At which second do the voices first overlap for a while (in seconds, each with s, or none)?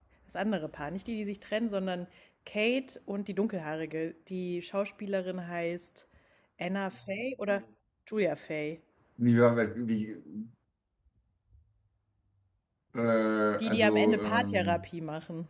13.6 s